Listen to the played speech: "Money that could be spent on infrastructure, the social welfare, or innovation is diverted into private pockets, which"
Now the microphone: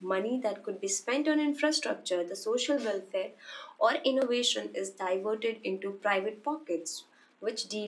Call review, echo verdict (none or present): present